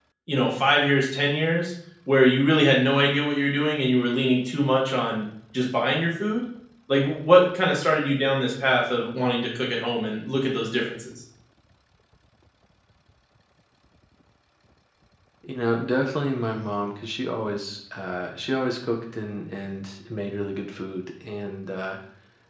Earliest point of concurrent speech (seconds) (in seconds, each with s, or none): none